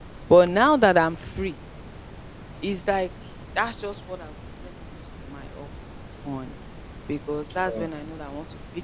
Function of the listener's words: listening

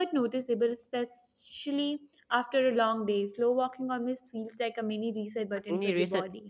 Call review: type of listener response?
taking over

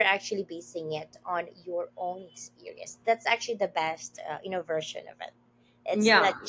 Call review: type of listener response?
taking over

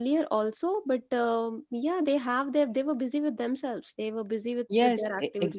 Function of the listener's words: taking over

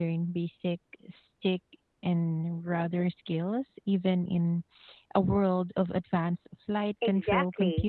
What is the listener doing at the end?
taking over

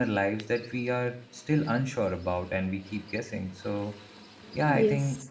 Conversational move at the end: listening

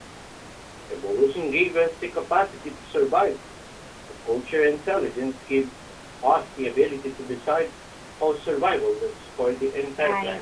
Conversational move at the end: taking over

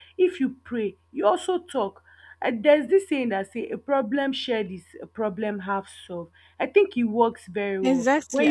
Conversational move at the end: taking over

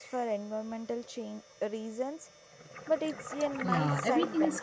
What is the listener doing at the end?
taking over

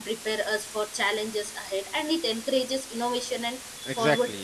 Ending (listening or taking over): taking over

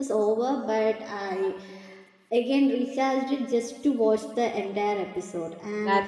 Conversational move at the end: listening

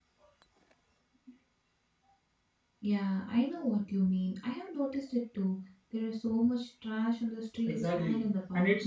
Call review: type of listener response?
taking over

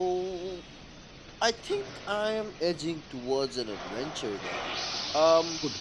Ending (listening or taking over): listening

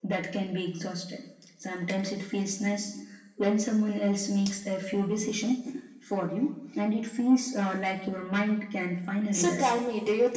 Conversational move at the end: taking over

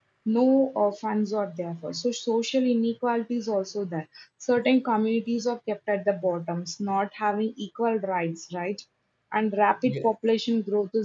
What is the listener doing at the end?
listening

